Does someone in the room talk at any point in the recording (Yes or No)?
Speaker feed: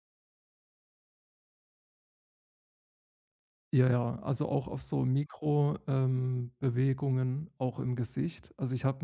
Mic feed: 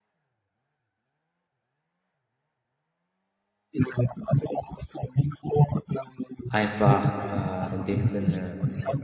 Yes